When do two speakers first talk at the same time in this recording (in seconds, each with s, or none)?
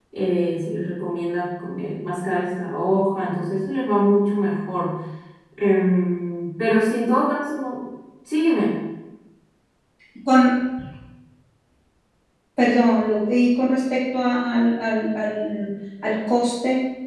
none